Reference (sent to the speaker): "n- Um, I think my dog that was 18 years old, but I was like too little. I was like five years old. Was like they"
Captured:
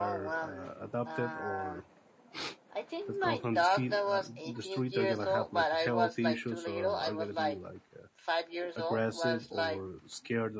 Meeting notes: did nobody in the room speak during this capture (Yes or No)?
No